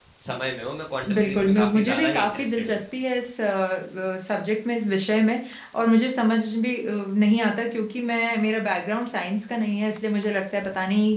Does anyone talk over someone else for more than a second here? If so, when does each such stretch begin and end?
1.1-2.8

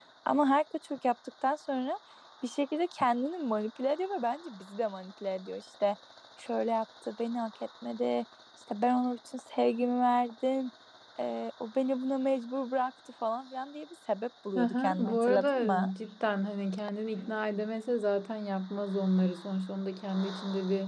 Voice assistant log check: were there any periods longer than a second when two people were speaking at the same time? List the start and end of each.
14.6-15.9

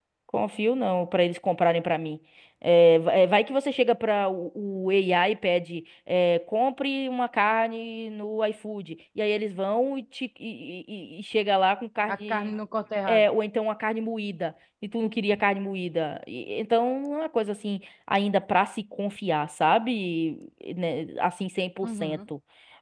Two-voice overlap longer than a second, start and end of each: none

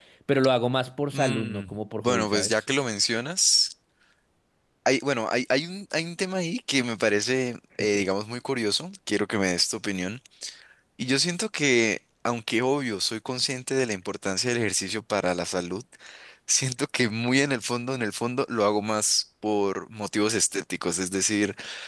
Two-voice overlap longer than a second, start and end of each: 1.1-2.6

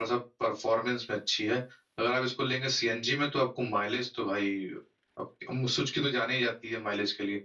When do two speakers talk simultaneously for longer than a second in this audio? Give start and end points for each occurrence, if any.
none

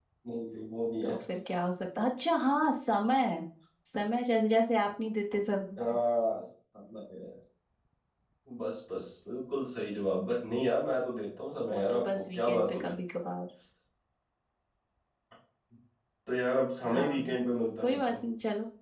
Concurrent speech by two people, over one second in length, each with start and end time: 11.7-12.9

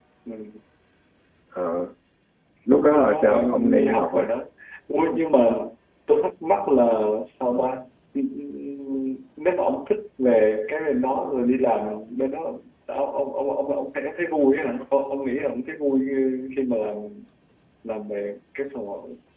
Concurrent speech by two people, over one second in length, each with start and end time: 2.9-4.3

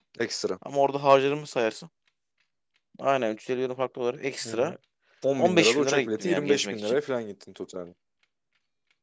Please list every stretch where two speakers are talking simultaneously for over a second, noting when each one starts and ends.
5.4-7.0

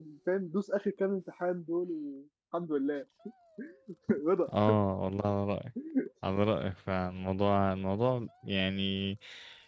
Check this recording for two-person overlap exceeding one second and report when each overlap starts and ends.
none

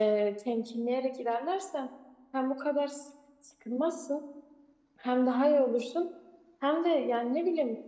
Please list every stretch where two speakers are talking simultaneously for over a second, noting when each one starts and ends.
none

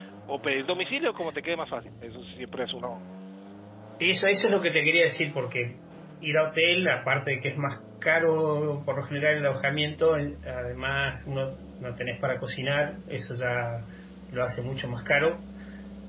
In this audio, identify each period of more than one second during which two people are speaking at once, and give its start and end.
none

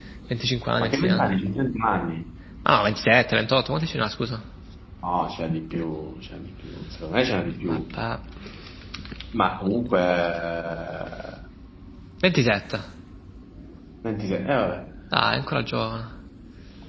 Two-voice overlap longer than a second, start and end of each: none

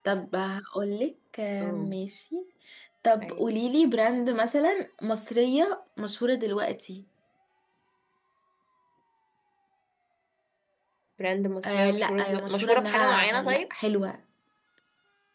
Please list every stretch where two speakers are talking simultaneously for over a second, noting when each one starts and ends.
11.6-13.6

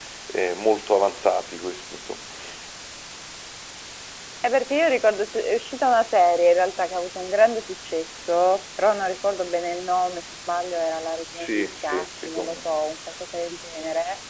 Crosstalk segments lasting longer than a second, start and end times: 11.4-12.6

